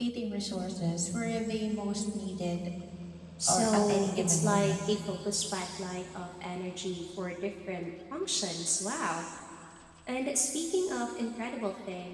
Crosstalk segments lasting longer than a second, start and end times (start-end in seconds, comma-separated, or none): 3.5-4.7